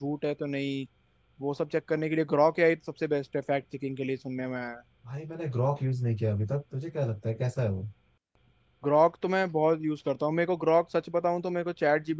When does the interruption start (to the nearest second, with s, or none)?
none